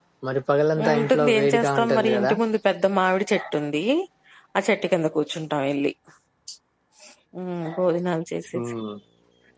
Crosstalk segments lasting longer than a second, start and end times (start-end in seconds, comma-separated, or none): 0.9-2.3